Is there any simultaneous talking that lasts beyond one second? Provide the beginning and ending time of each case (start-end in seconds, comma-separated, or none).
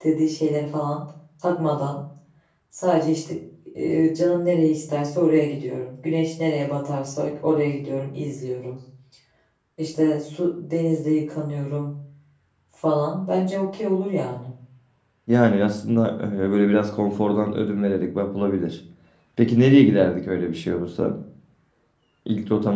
none